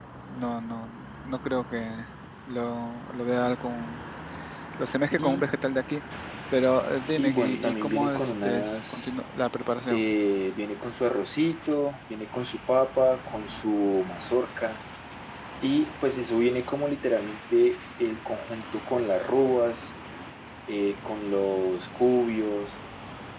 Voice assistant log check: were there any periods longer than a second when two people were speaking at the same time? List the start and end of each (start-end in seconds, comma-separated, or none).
7.2-9.1